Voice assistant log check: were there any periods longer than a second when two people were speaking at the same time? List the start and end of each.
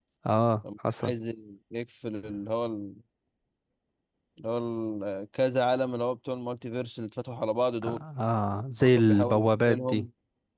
8.8-10.1

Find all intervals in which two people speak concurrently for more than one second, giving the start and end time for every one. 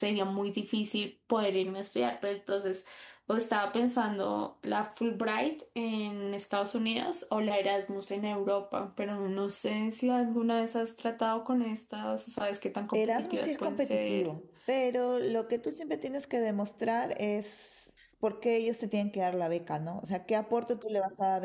12.9-14.3

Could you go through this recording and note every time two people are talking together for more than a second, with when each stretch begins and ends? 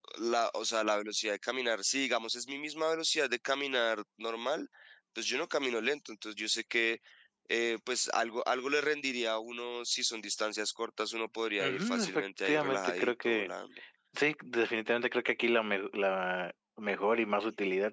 11.6-13.5

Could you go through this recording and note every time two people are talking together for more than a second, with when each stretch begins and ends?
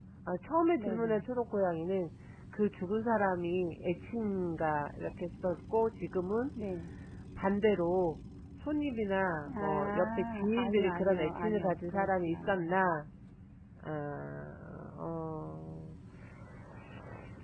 9.6-12.8

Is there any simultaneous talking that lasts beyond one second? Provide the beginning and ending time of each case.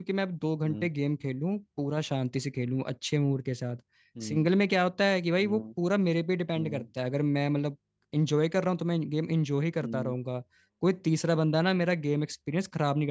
none

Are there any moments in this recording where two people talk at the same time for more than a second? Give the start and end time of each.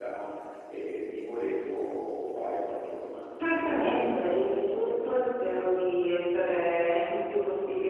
3.4-4.9

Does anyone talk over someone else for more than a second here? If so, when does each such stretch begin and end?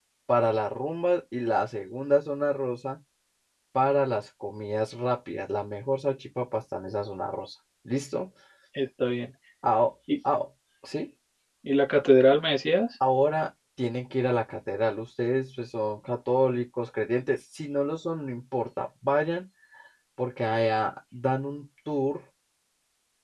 none

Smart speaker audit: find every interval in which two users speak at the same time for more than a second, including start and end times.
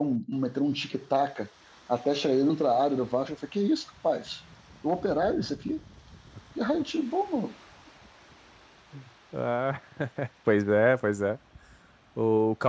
none

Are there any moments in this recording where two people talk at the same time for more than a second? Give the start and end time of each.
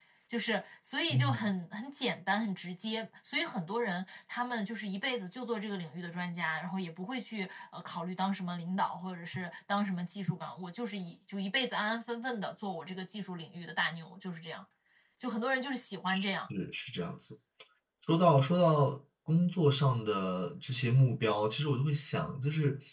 none

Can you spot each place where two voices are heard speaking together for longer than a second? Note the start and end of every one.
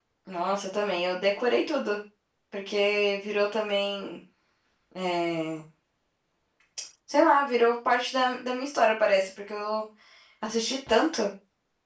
none

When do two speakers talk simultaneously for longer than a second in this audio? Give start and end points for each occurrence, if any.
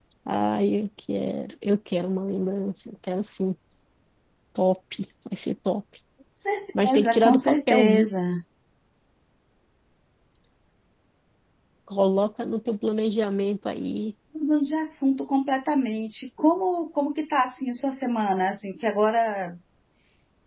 6.8-8.1

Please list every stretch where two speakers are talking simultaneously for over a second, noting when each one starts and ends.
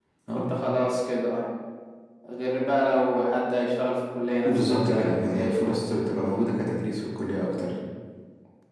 4.4-5.8

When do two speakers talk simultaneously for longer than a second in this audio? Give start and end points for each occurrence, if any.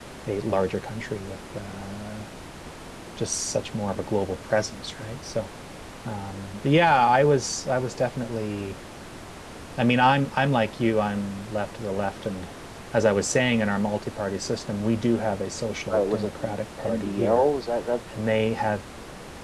15.9-17.4

